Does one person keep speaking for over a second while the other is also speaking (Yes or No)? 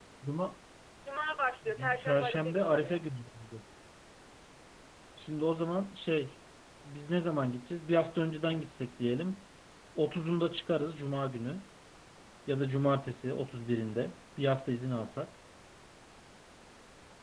Yes